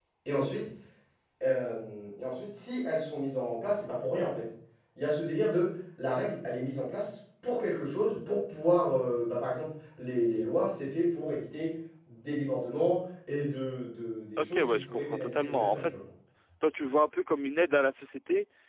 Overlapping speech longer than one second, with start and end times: 14.4-15.8

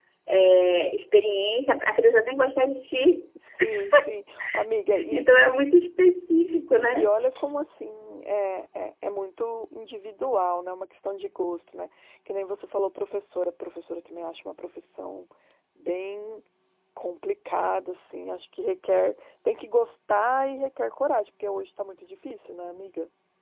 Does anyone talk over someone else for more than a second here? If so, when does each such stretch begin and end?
none

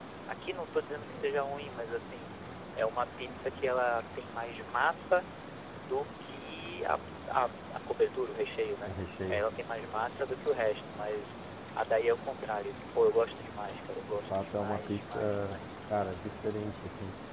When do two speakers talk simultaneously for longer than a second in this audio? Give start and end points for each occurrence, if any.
14.1-15.6

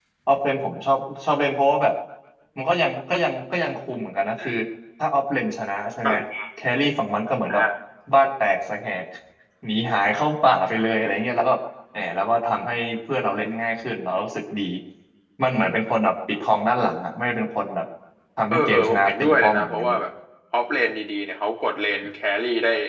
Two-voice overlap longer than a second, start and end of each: 18.5-20.0

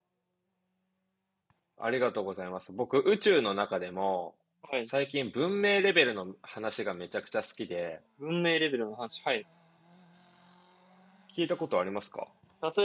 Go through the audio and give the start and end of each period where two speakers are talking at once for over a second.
none

